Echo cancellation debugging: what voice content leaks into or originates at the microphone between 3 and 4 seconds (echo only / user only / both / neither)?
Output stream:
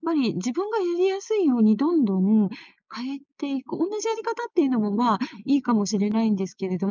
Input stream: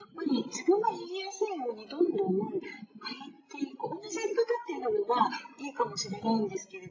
echo only